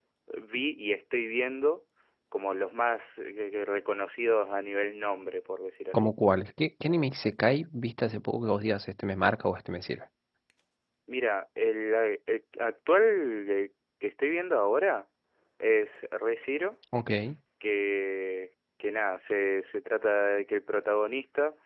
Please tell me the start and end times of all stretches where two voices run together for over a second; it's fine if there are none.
none

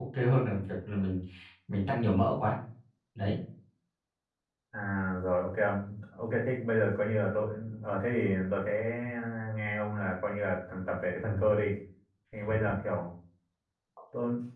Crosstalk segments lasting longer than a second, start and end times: none

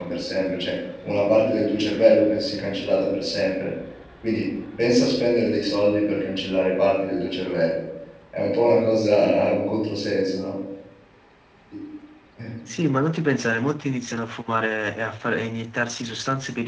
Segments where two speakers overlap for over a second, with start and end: none

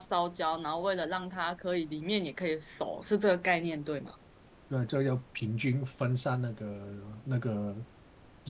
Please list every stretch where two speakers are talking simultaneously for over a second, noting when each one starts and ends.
none

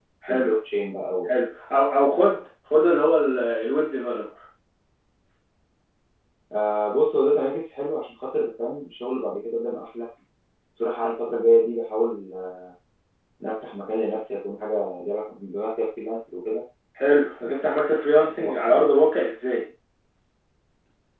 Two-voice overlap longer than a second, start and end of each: none

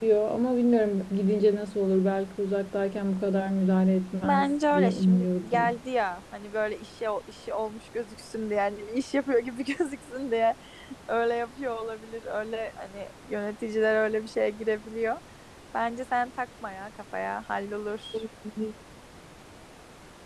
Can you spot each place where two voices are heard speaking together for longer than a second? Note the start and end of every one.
4.2-5.8

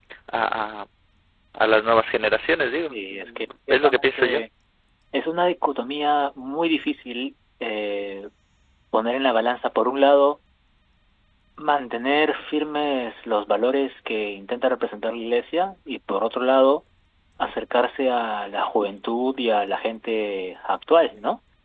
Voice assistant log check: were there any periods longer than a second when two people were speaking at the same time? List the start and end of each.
2.8-4.4

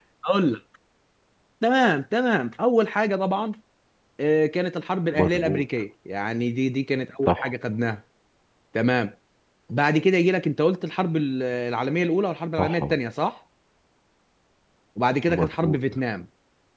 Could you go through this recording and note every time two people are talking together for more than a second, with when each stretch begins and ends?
none

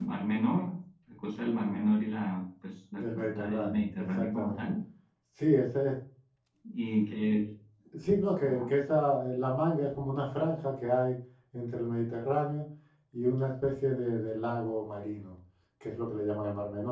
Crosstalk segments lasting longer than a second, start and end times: 3.0-4.6

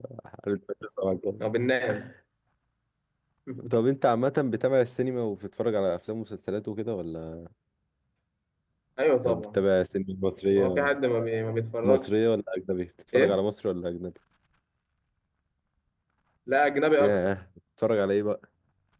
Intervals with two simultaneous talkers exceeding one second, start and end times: none

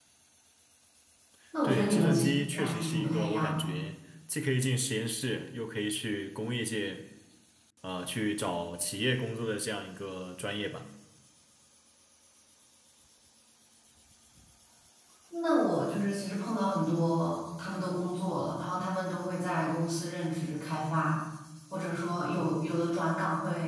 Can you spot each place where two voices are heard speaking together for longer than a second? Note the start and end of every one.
1.6-3.7

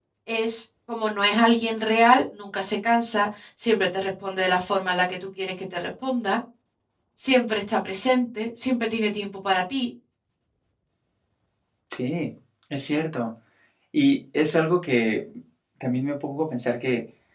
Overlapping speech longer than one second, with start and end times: none

